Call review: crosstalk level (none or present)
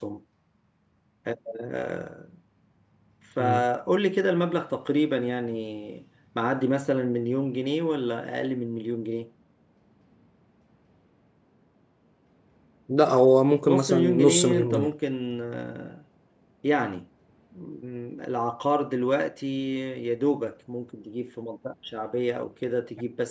present